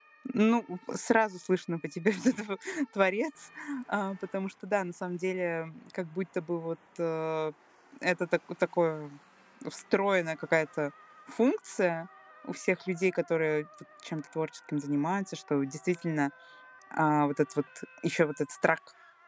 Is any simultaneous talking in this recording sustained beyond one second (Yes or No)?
No